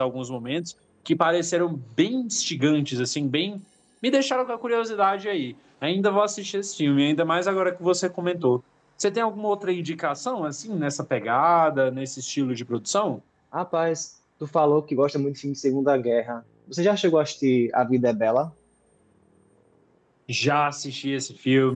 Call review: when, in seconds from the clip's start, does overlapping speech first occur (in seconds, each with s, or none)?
none